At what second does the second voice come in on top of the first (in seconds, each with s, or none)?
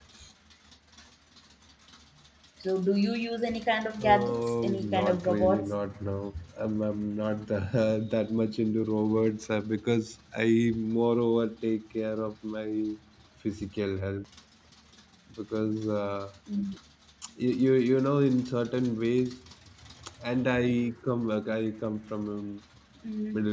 4.0 s